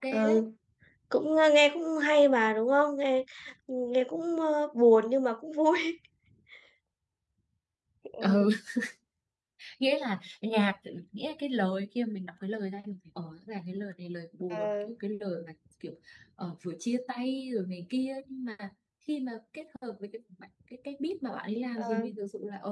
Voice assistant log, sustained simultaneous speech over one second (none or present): none